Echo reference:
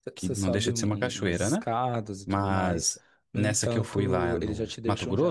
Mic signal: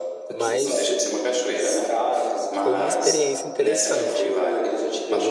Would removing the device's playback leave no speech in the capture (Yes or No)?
No